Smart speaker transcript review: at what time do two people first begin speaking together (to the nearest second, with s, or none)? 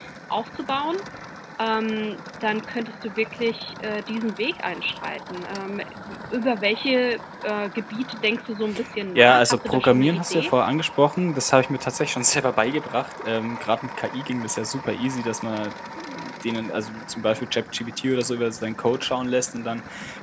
9 s